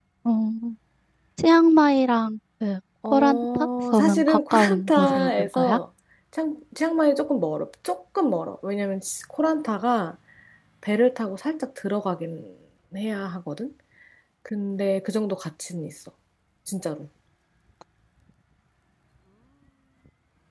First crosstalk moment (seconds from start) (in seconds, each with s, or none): 3.0 s